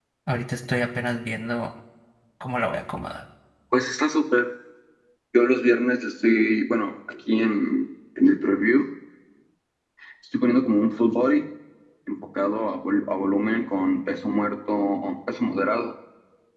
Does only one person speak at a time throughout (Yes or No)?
Yes